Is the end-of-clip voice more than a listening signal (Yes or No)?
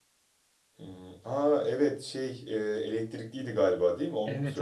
Yes